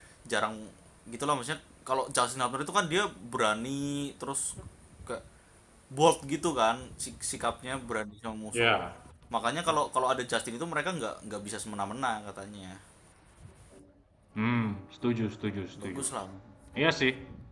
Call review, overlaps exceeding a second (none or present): none